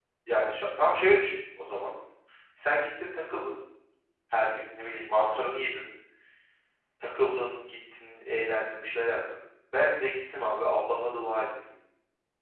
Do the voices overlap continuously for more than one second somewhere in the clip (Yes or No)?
No